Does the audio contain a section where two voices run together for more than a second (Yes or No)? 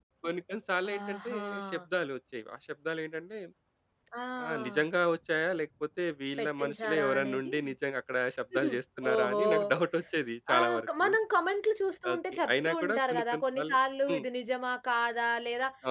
Yes